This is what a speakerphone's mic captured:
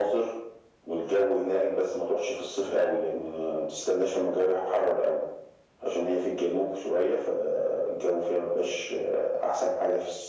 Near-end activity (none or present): none